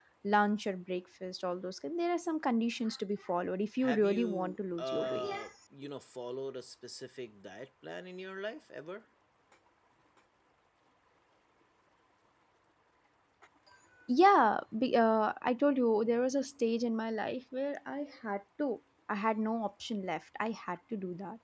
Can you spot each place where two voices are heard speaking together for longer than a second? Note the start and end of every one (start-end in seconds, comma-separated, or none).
3.8-5.3